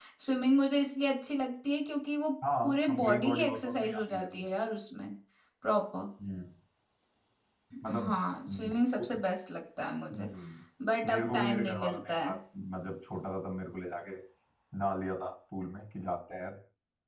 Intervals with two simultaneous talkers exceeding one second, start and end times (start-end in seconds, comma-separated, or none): 2.6-4.5, 11.0-12.3